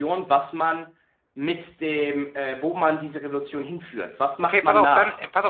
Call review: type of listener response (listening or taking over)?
taking over